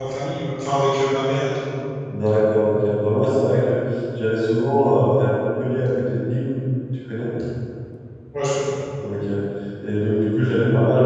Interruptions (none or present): none